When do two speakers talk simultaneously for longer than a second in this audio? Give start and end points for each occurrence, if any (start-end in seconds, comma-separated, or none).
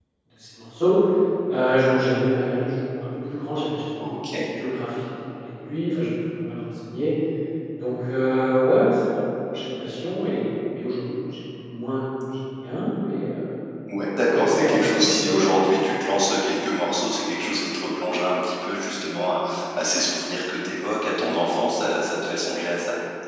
14.3-15.6